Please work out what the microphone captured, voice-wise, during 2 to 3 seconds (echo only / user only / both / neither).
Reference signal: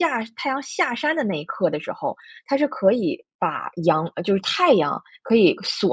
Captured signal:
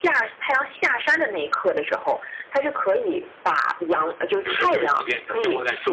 echo only